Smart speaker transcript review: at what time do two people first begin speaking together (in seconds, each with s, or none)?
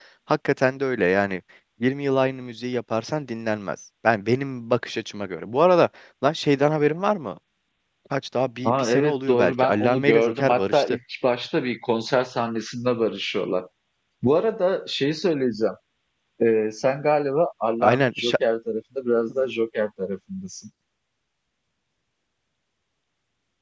8.6 s